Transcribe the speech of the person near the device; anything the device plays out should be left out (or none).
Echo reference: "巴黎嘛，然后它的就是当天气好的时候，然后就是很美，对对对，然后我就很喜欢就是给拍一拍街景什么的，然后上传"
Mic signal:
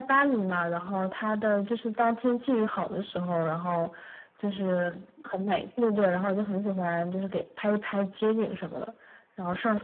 none